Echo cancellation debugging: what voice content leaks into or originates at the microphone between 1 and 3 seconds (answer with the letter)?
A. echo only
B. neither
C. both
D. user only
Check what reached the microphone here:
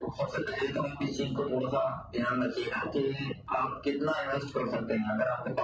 A